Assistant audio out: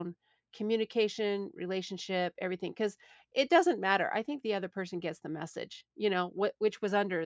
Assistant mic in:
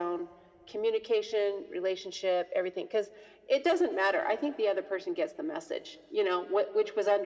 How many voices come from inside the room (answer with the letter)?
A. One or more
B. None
B